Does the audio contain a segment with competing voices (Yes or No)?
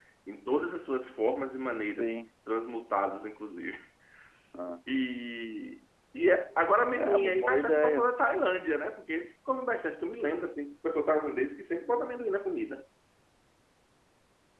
Yes